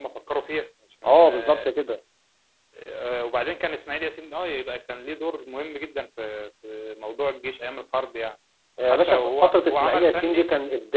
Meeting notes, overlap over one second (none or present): present